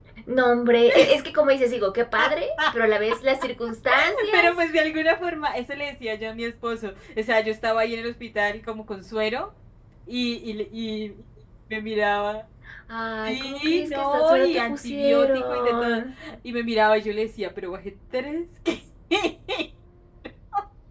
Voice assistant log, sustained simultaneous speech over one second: present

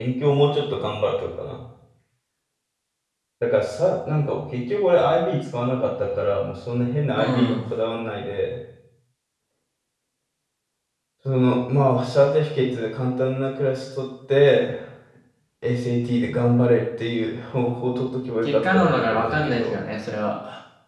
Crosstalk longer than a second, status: present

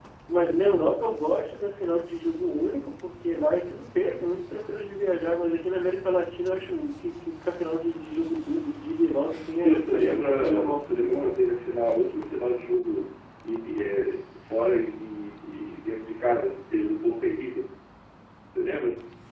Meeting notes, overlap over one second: present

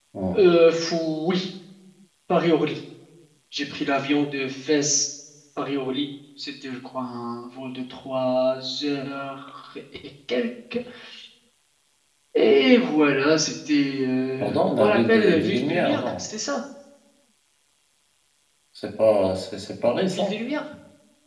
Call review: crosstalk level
present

